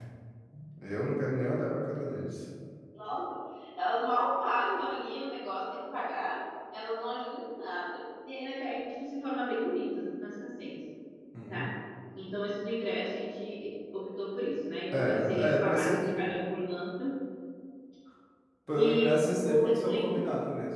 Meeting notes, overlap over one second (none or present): present